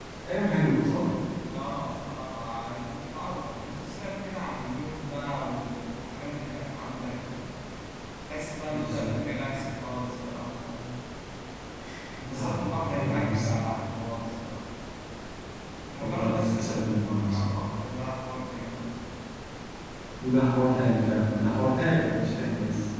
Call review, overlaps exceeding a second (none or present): present